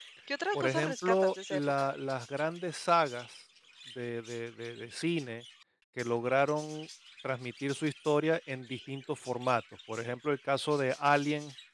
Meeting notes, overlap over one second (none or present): present